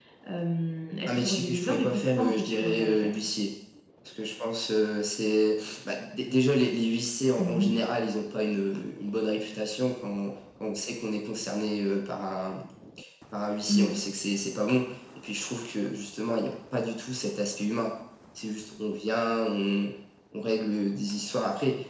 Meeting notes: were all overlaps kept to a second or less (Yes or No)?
No